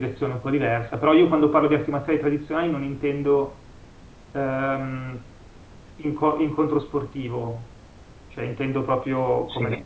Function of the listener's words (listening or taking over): taking over